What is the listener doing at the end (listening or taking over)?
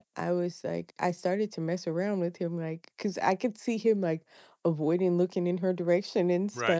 listening